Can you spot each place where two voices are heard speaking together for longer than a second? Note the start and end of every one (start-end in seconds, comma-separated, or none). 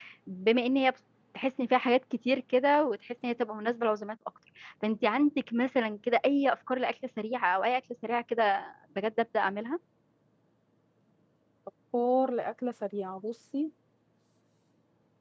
none